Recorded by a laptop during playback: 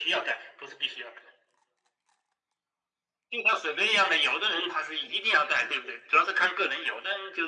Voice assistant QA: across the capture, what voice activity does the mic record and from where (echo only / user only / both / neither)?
echo only